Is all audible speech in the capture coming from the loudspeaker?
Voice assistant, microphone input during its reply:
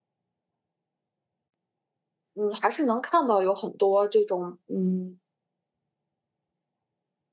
No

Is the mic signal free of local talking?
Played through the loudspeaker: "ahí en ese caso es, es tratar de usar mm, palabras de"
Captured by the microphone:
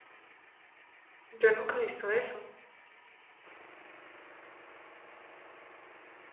No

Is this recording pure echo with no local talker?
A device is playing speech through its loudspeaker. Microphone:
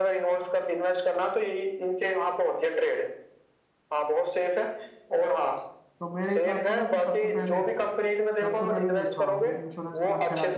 No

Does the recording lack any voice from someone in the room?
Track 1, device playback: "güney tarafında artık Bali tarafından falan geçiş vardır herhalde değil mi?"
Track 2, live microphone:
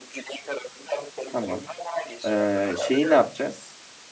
No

